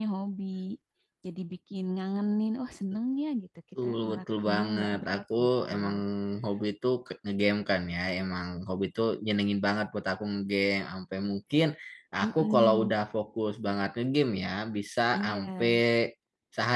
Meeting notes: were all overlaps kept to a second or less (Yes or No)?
No